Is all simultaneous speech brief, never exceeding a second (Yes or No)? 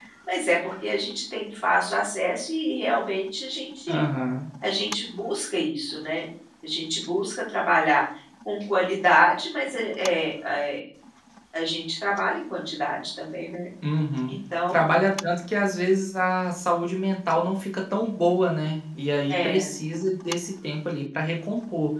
Yes